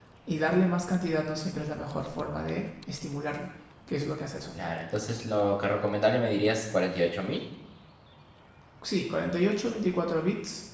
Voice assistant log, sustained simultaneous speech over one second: none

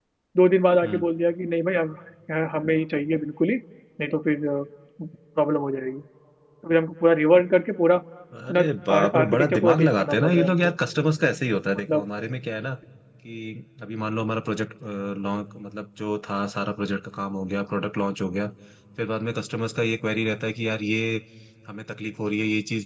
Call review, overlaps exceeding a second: present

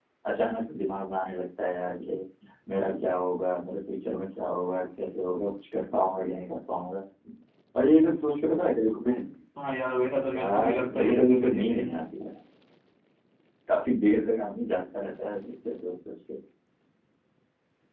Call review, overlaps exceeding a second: present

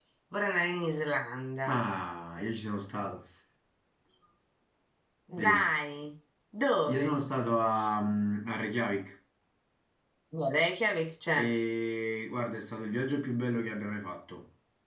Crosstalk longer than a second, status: none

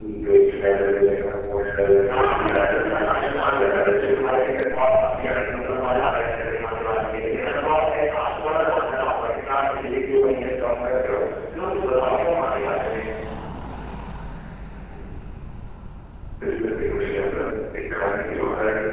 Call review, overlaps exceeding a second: present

